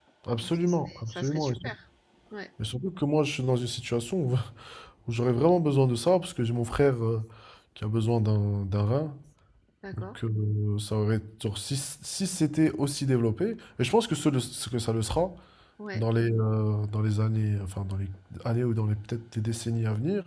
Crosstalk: present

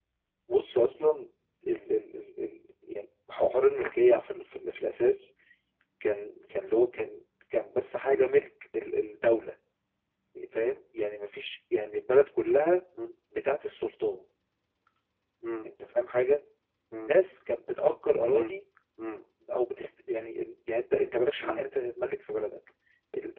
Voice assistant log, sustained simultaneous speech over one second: none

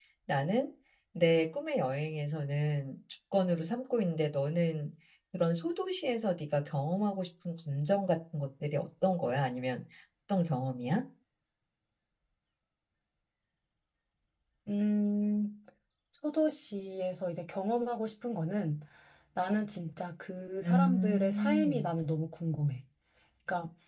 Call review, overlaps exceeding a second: present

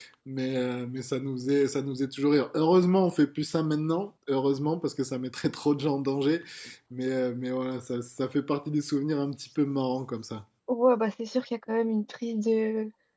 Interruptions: none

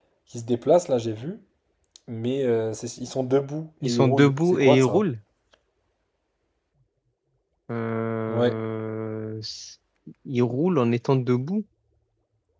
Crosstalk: present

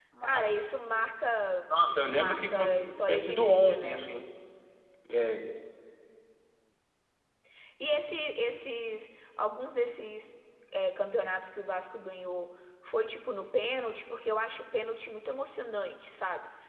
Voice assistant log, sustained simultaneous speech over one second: present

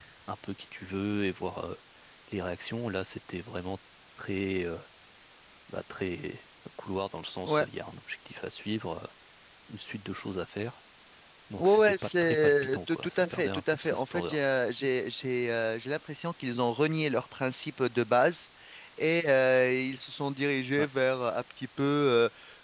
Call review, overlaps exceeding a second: present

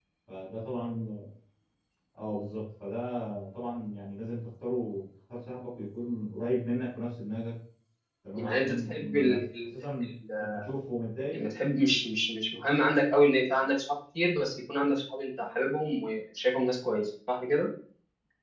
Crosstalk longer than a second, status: present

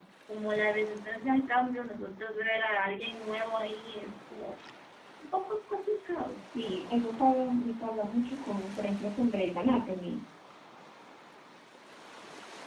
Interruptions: none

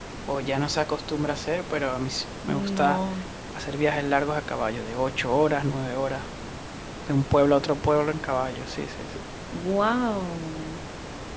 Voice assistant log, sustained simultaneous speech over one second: none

